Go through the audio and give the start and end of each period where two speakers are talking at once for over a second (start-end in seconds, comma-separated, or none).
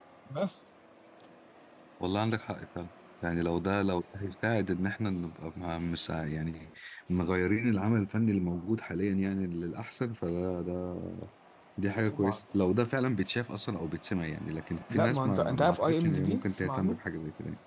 14.9-17.0